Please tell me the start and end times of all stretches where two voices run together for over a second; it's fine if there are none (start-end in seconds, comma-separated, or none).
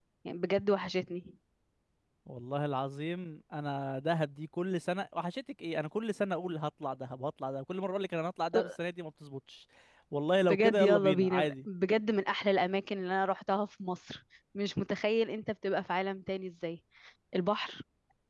10.4-11.7